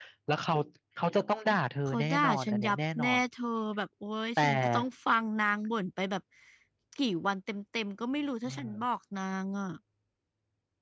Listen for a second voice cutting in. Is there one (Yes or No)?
Yes